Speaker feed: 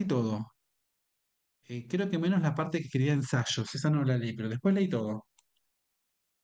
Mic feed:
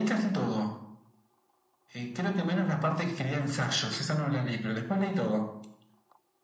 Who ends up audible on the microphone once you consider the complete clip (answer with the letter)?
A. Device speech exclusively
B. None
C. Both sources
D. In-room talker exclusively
A